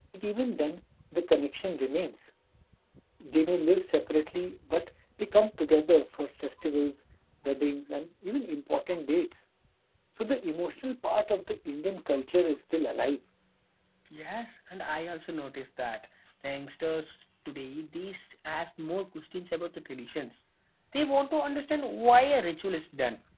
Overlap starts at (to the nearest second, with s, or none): none